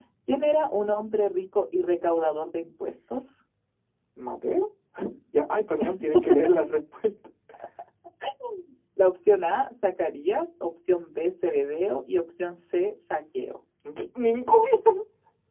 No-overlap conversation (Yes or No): Yes